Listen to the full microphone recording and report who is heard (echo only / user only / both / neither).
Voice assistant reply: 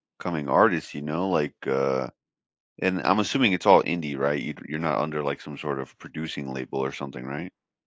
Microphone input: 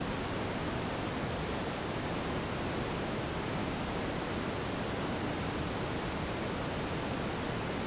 neither